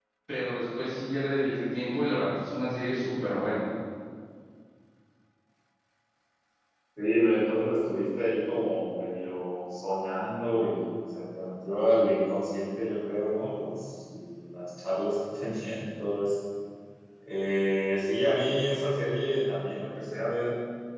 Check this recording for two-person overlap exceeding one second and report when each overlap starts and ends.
none

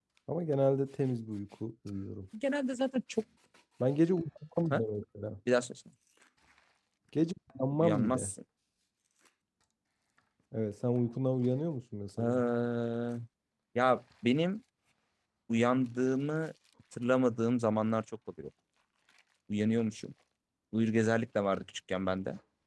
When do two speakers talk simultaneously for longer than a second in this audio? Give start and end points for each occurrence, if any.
none

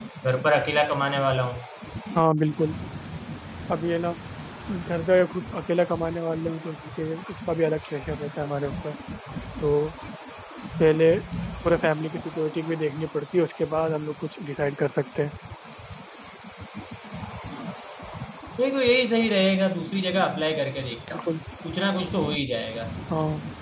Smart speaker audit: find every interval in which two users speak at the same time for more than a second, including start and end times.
none

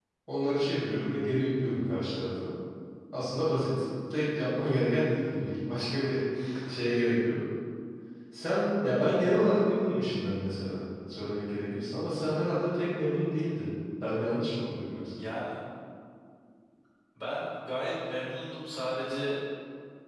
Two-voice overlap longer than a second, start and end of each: none

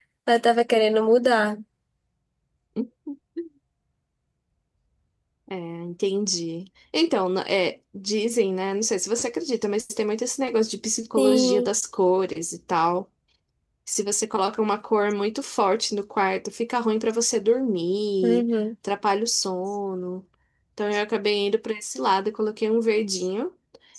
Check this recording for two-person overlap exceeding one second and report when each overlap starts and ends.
none

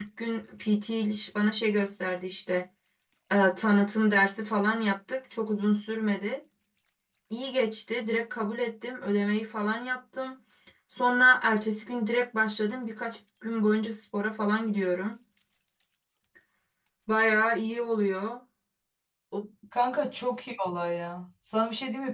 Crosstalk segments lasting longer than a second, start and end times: none

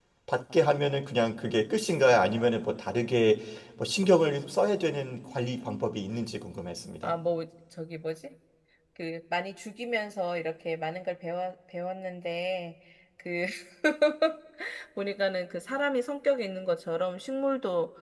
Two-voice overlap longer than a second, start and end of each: none

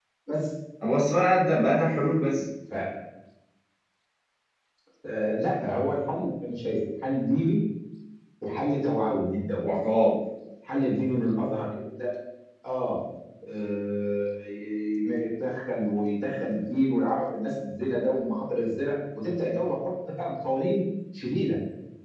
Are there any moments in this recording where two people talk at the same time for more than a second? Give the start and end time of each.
none

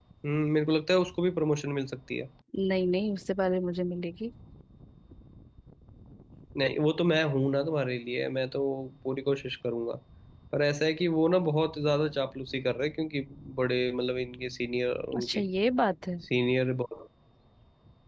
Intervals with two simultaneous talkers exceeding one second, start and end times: none

